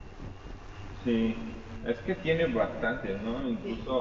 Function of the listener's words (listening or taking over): listening